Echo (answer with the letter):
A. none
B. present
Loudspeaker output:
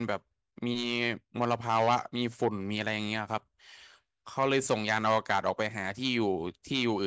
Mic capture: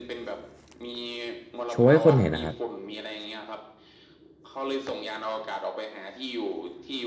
B